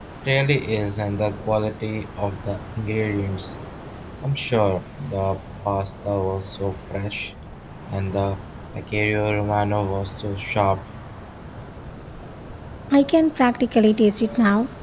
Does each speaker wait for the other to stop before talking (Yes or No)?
Yes